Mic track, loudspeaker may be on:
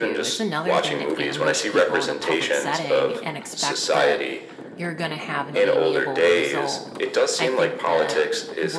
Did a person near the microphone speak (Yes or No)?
Yes